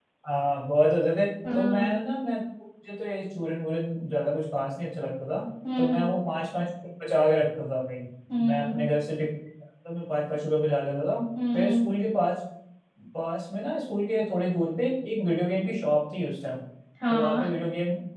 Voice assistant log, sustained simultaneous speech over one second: none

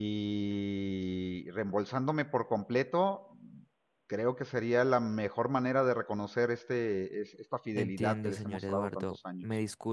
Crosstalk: present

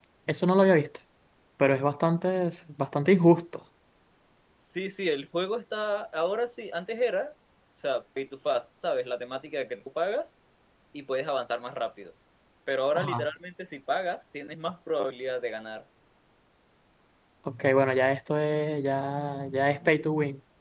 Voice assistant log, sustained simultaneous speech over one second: none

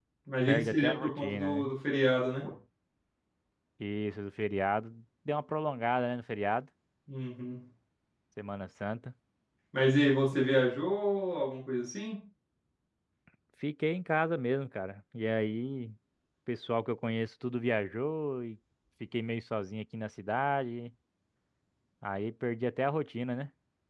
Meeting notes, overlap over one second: present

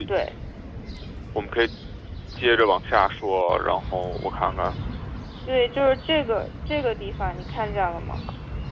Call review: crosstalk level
none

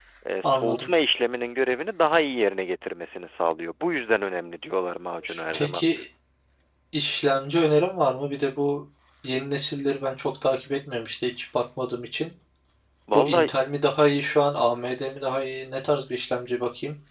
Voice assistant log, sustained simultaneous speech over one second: none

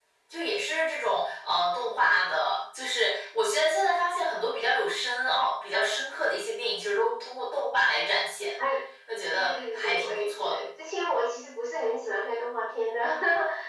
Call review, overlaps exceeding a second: present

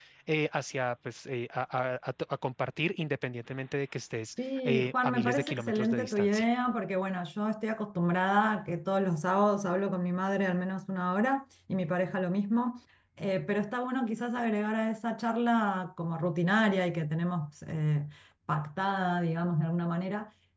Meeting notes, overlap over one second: present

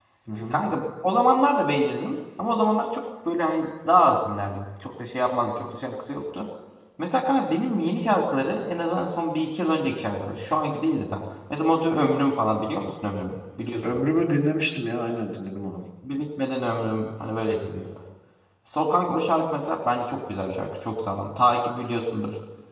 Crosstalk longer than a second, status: none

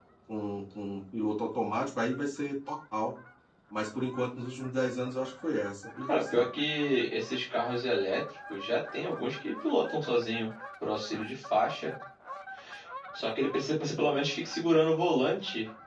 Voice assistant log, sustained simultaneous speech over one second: none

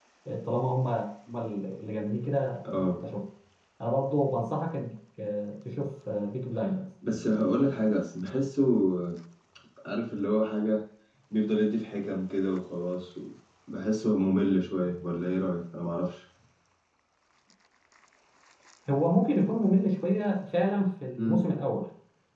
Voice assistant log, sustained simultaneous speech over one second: none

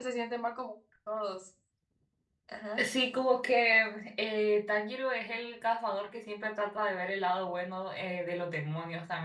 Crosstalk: none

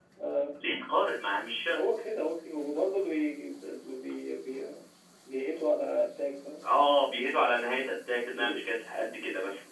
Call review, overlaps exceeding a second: none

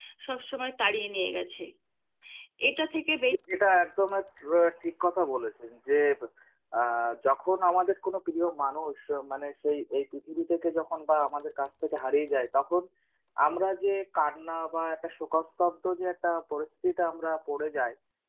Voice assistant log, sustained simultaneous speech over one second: none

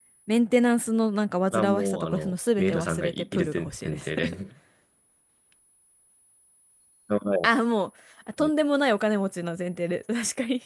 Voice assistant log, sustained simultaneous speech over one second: present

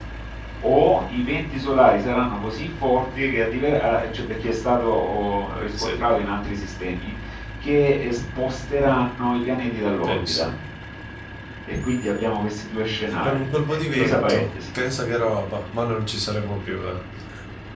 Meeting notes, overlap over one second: present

